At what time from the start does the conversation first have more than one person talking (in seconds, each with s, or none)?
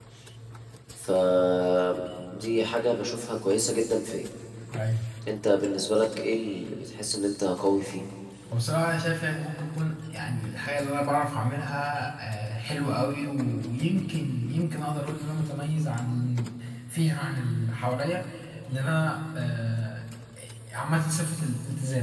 none